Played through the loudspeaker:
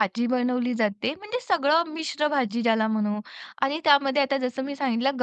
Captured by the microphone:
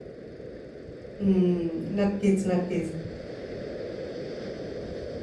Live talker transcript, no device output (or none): अं, नक्कीच, नक्कीच